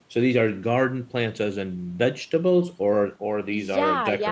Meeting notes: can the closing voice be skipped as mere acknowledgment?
No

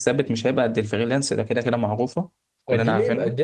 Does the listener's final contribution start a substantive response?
Yes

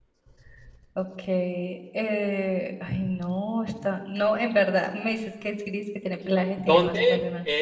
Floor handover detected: Yes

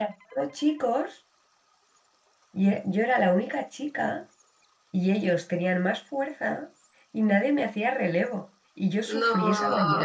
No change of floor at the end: Yes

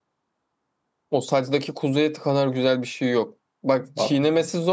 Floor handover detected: No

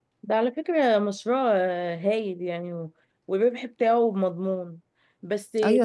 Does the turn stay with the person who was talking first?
No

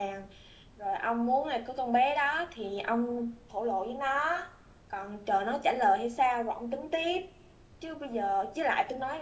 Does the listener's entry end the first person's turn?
No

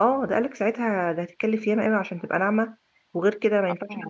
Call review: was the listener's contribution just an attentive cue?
Yes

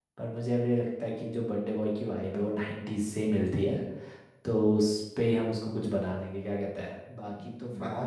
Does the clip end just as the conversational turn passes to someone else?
Yes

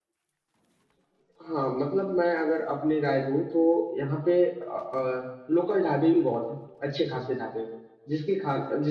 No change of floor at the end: Yes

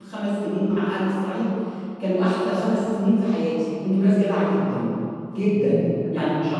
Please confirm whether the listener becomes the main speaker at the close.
No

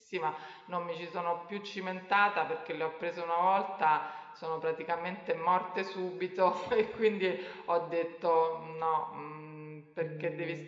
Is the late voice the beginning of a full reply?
No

